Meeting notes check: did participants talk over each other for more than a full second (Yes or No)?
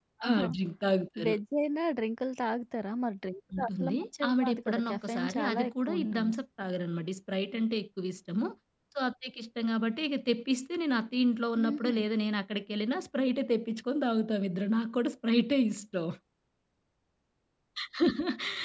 Yes